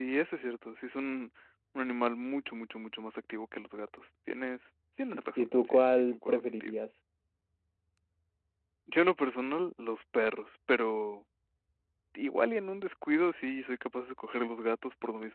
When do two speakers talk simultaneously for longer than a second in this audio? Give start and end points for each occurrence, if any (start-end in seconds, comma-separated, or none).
5.0-6.8